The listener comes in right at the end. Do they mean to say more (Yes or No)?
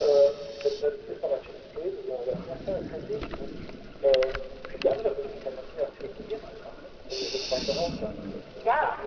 No